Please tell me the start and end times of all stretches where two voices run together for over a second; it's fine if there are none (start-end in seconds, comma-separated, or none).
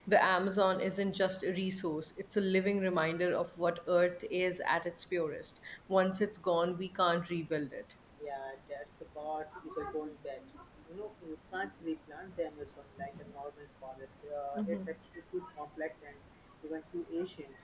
none